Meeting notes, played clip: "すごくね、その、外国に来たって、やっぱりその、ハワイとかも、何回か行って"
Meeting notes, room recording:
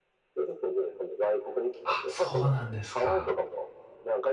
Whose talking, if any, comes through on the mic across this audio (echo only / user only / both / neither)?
both